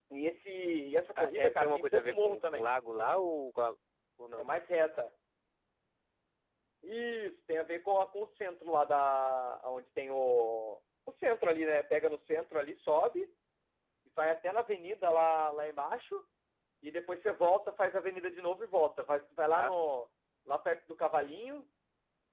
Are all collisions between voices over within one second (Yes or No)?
No